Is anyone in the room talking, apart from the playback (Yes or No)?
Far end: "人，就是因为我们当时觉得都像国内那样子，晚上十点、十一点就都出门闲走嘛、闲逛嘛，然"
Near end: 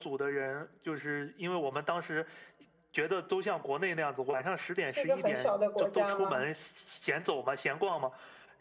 Yes